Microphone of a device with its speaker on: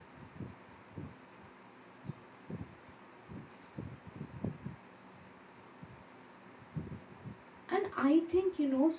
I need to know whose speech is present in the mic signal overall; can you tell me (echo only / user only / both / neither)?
user only